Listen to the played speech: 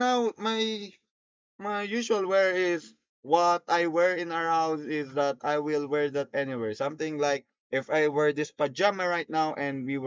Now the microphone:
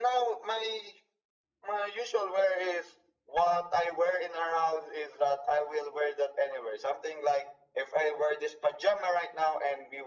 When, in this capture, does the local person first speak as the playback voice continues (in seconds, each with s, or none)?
none